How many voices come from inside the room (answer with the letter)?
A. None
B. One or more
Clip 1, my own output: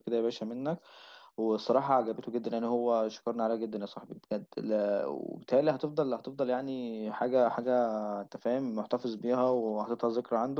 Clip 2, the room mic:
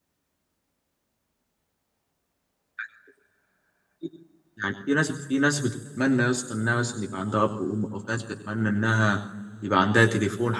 B